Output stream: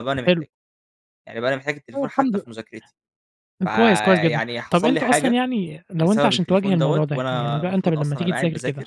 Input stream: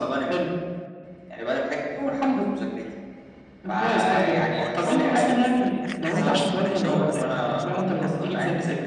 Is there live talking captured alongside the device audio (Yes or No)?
Yes